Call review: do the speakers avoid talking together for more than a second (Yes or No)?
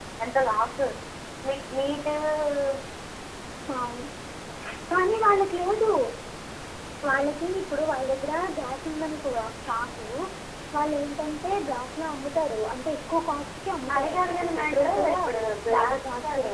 No